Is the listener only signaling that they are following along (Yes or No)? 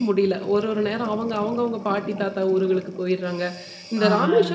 Yes